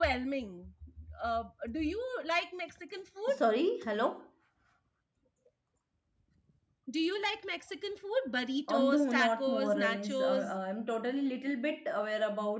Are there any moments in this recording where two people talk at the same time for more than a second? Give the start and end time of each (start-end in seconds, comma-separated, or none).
8.7-10.5